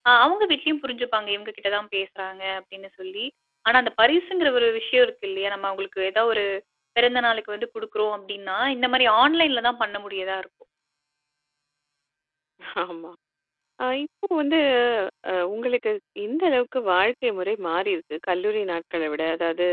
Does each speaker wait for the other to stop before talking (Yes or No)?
Yes